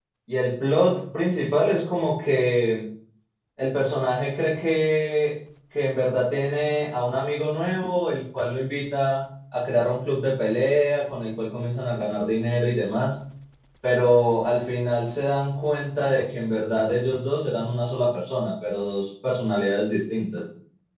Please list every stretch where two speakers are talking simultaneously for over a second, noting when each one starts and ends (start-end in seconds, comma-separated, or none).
none